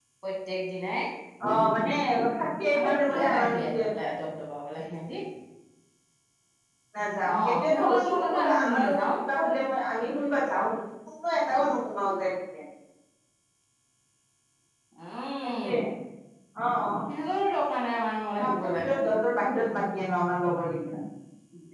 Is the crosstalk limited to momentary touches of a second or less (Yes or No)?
No